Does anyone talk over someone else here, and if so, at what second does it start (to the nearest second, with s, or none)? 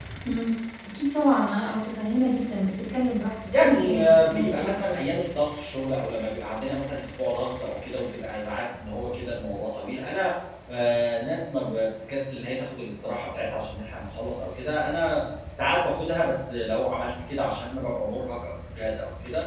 4 s